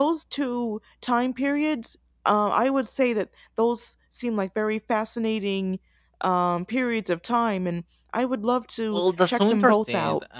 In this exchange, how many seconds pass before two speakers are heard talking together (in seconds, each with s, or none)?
8.9 s